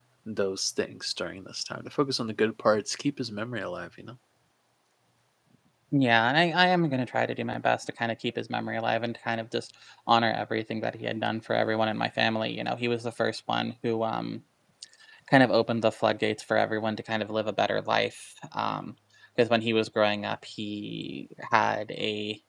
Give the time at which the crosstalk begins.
none

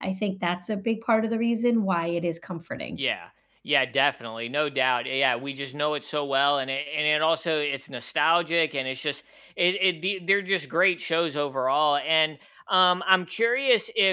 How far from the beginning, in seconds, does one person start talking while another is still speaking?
none

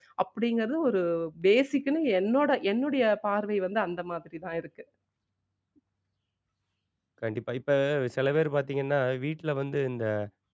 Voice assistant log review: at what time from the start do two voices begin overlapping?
none

